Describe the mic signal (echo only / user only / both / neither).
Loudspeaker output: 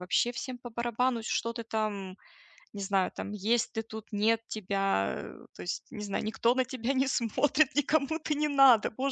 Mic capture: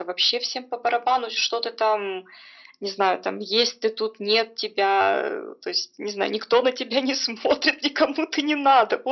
echo only